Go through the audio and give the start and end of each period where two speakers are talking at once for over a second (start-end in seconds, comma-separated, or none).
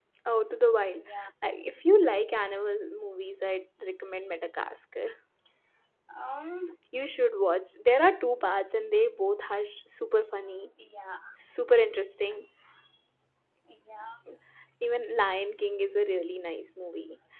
none